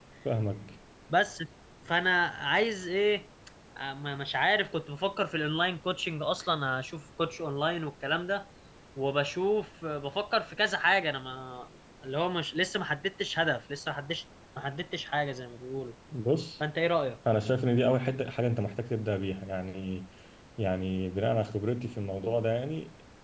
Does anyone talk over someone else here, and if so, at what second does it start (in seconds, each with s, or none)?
none